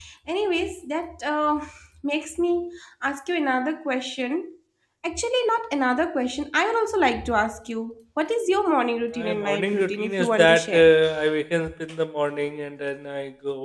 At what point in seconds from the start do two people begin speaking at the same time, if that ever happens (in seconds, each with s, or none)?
9.2 s